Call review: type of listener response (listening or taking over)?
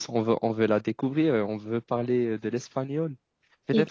listening